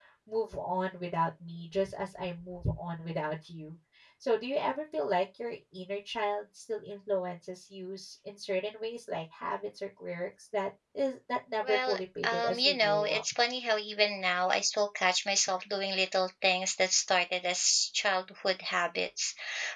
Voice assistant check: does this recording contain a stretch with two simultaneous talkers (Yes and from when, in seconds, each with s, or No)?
Yes, from 11.6 s